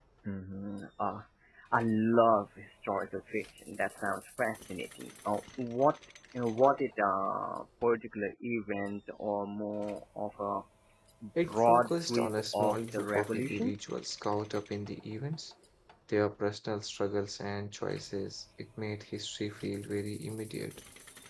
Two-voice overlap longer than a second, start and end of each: 11.4-13.7

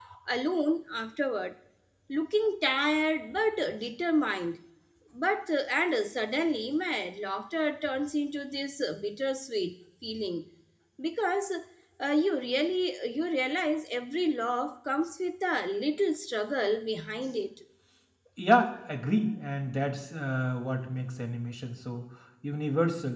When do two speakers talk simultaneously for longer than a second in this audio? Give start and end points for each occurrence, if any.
none

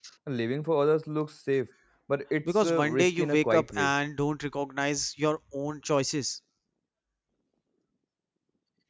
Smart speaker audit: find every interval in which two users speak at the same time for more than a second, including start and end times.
2.5-3.9

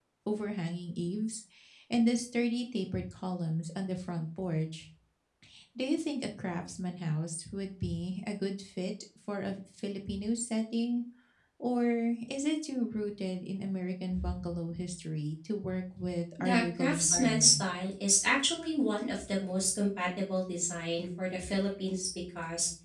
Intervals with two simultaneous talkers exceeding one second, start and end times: 16.4-17.6

